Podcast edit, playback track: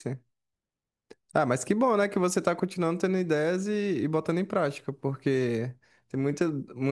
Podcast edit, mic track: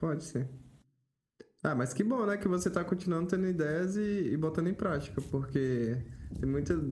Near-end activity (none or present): none